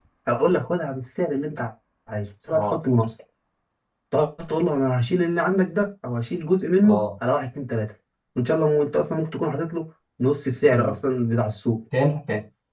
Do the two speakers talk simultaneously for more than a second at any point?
No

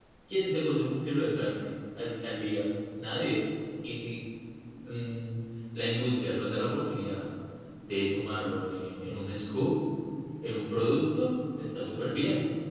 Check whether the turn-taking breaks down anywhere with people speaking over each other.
No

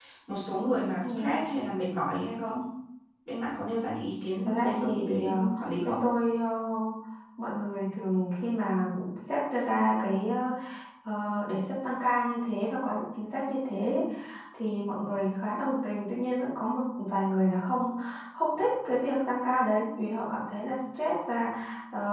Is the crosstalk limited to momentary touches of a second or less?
No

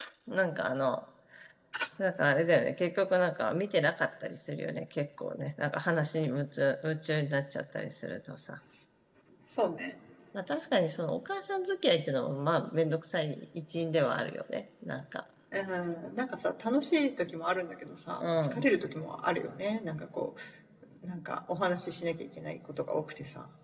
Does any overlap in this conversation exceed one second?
No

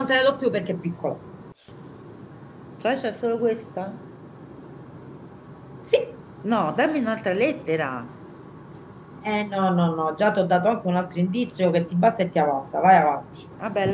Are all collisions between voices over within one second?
Yes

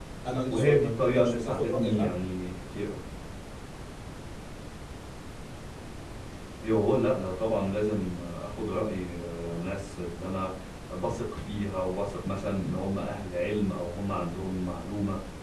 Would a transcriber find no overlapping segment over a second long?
No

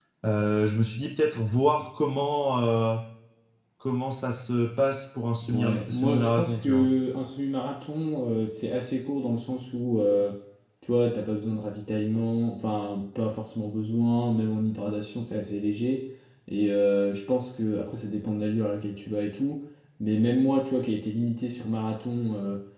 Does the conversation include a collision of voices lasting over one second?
Yes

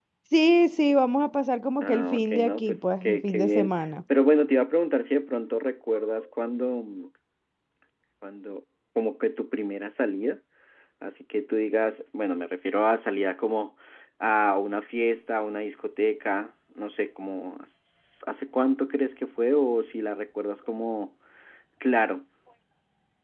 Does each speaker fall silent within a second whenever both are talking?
No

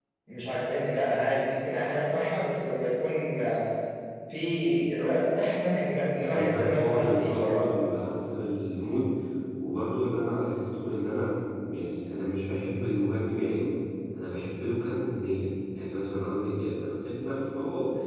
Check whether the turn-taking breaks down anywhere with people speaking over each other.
Yes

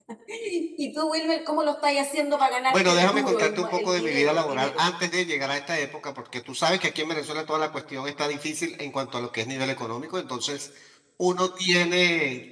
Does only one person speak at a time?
No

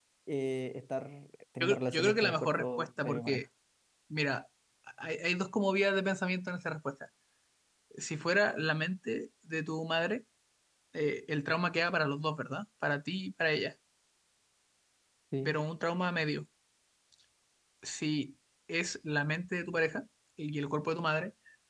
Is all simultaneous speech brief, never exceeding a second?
No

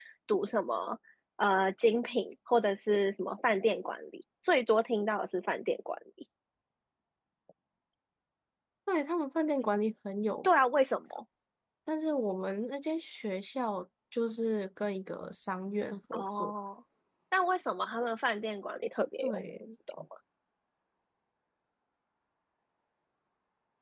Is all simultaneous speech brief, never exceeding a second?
Yes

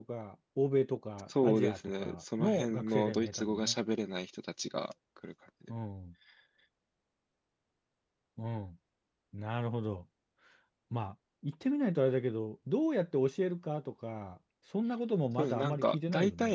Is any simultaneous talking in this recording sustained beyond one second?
Yes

